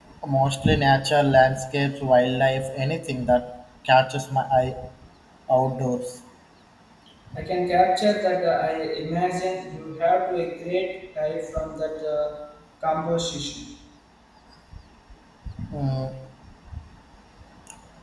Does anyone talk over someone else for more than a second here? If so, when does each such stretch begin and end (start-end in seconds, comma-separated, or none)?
none